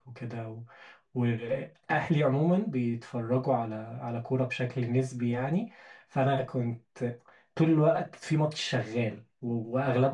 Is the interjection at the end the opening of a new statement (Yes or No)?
No